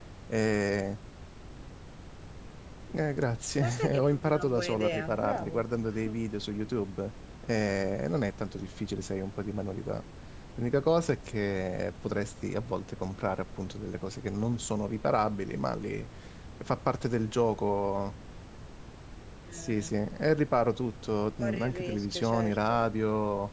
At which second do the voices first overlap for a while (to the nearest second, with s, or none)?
4 s